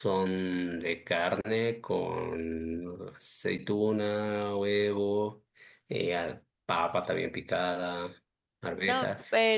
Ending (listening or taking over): taking over